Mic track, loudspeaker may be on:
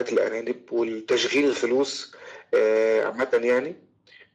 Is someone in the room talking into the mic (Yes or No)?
No